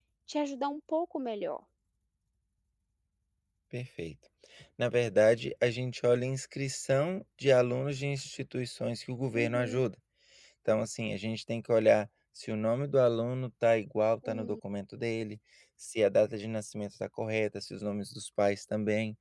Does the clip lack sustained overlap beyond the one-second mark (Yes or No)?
Yes